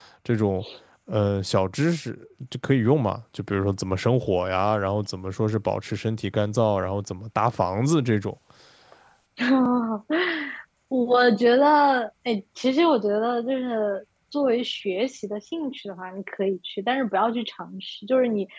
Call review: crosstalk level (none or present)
none